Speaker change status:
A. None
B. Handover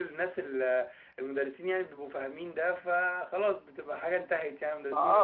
B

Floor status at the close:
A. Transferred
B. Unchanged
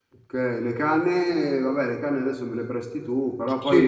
A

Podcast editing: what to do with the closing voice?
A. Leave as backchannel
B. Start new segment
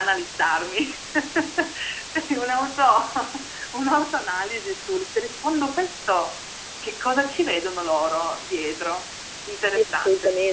B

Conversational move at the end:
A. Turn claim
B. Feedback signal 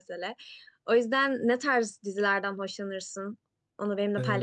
A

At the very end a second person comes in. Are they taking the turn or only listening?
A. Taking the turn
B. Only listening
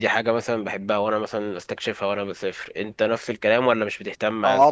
A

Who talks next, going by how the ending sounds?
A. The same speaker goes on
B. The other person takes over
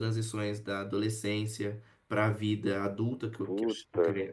A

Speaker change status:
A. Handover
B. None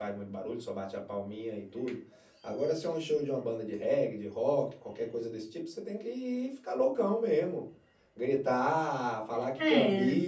B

